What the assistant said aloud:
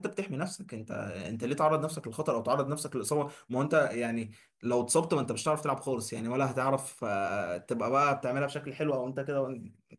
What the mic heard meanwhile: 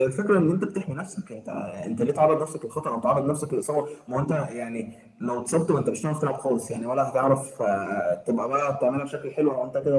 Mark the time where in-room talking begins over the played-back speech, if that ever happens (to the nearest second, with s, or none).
none